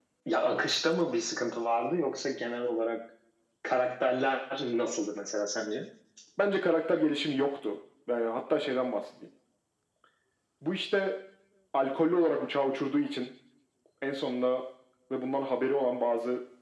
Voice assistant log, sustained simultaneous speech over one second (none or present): none